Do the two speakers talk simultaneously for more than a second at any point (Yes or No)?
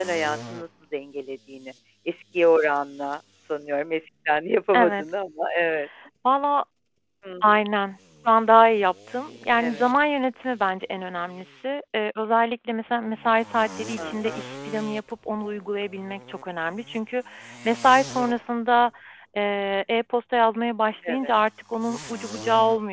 No